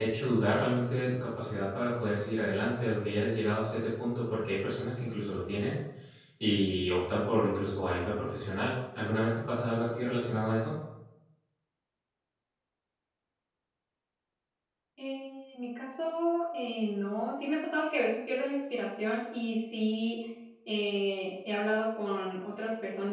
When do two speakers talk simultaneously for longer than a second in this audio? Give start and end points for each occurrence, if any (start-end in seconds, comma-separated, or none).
none